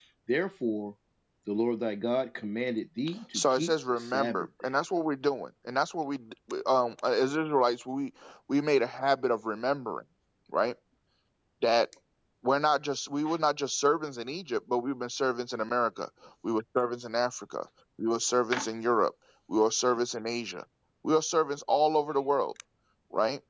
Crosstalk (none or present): present